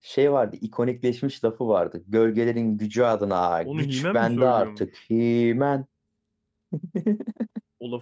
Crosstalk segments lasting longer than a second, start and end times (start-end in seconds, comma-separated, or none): 3.6-4.9